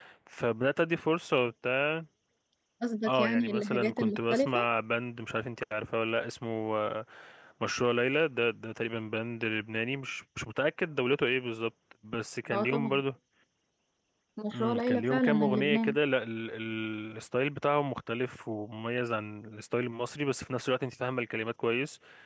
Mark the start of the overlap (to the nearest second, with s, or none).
3 s